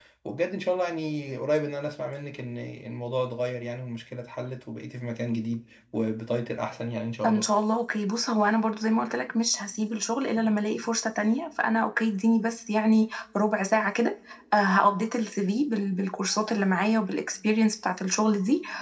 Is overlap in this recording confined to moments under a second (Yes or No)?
Yes